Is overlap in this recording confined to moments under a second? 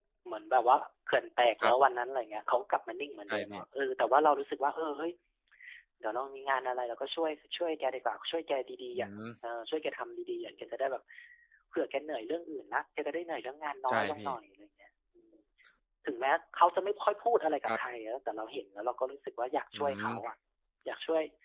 Yes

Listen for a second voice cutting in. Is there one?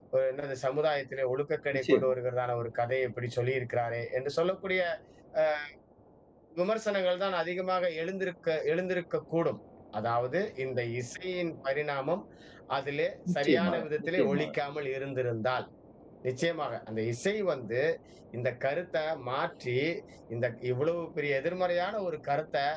Yes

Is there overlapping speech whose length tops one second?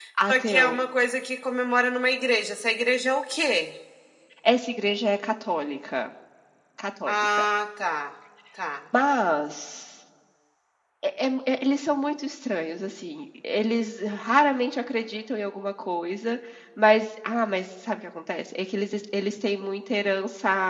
No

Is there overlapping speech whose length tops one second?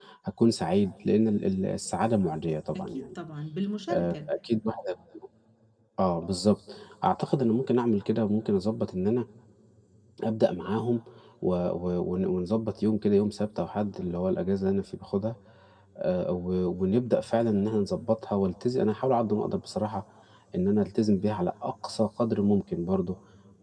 No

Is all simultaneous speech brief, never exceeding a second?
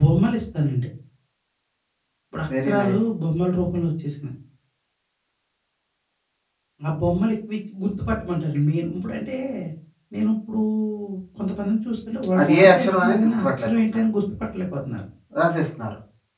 No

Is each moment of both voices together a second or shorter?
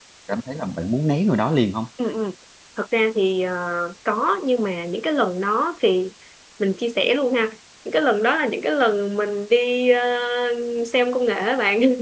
Yes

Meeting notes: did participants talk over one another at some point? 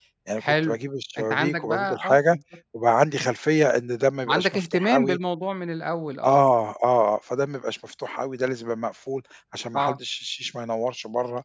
Yes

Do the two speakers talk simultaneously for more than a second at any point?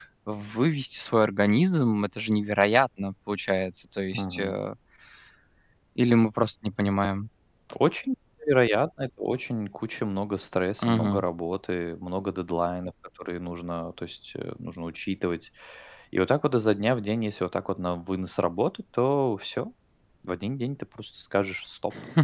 No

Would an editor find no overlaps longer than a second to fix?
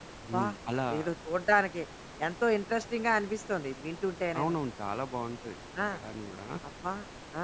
Yes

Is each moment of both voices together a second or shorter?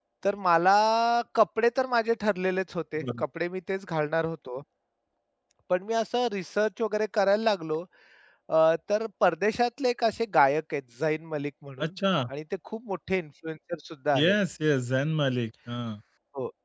Yes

